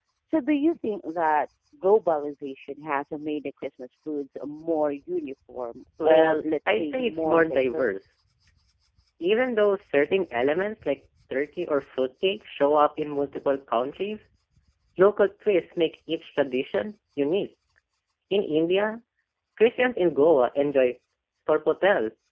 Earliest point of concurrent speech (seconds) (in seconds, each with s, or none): 6.0 s